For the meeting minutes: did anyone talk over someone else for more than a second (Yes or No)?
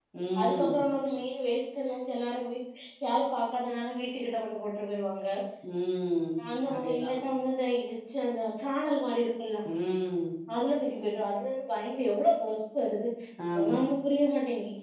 No